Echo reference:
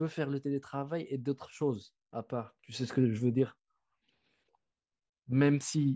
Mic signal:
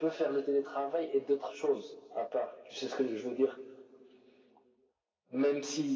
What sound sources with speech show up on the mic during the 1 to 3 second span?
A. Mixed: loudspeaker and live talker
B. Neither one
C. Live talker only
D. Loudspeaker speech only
D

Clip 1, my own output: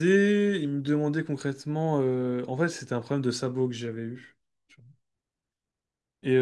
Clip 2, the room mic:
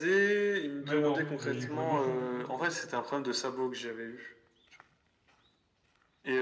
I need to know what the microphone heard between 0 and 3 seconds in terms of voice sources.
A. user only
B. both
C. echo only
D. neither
B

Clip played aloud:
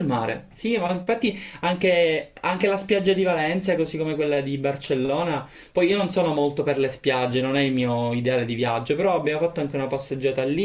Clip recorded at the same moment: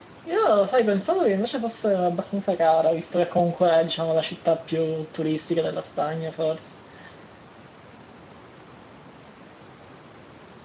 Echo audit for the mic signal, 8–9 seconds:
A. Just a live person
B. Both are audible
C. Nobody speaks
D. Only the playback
C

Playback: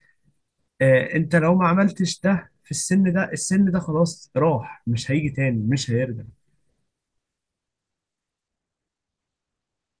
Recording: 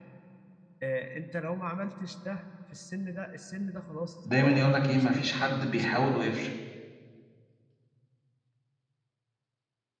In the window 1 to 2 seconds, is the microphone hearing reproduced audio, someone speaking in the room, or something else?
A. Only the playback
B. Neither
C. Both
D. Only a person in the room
A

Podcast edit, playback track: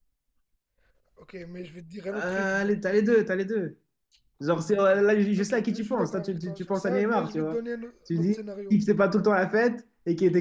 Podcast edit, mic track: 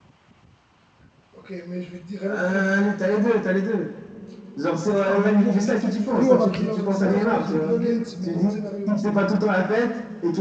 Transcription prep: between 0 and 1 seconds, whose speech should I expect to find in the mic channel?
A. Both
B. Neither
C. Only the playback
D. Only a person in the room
B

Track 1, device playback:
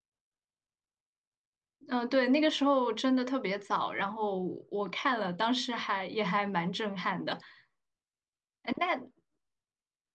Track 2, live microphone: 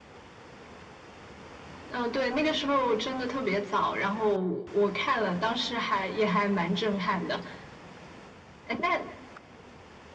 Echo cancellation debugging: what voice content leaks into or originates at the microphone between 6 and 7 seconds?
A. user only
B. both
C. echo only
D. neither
C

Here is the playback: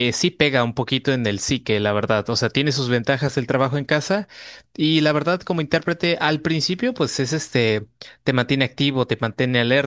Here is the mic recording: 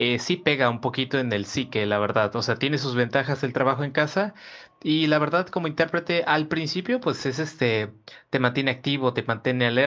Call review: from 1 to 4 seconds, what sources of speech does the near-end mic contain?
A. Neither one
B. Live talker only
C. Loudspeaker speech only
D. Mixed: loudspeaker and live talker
C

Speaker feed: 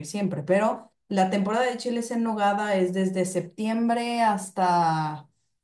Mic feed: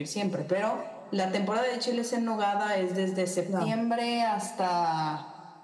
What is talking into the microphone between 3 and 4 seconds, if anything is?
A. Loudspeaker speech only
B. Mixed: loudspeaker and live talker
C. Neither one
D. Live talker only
B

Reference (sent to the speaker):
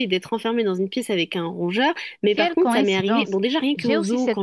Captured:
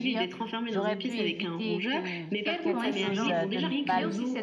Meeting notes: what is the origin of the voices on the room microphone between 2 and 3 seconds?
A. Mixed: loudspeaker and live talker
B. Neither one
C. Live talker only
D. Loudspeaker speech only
A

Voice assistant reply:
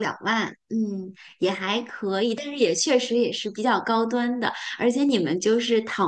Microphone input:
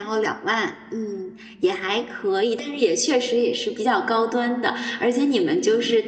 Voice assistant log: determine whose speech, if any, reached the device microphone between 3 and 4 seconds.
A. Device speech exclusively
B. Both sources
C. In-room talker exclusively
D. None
A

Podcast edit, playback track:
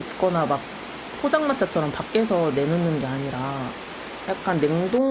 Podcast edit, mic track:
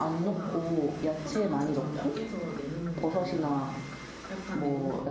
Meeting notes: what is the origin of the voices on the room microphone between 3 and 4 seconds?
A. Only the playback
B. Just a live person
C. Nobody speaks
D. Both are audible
D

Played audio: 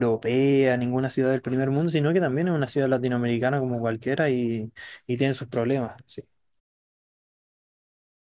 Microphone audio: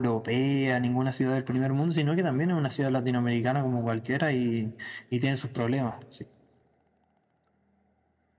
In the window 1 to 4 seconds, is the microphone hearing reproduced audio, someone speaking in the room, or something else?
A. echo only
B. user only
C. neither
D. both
A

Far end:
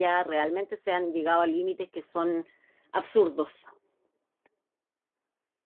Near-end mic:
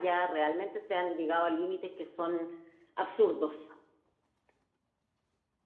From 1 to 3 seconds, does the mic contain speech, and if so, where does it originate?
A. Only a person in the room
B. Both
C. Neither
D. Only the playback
D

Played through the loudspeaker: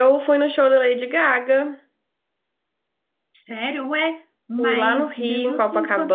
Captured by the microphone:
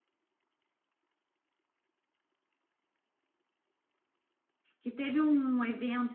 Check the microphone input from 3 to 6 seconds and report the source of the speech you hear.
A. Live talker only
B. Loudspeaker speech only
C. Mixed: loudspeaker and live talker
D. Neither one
A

